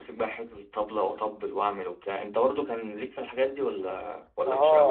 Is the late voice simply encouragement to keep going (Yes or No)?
No